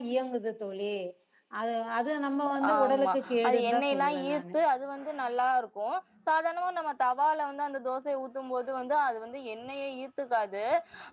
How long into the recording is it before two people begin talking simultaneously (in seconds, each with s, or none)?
2.7 s